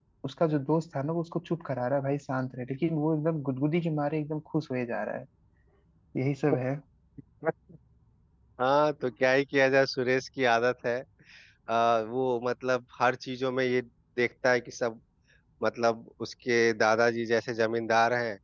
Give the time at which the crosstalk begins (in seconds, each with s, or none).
none